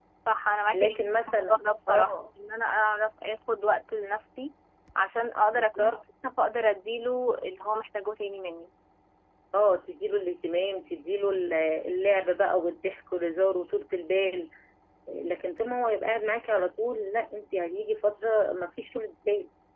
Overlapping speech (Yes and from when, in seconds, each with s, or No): Yes, from 0.7 s